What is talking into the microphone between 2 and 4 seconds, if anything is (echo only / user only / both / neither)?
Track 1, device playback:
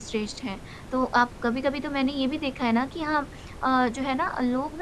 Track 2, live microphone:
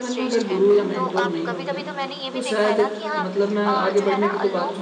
both